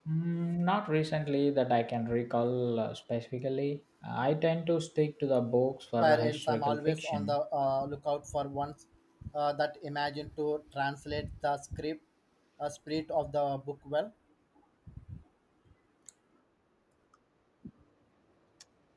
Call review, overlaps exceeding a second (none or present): present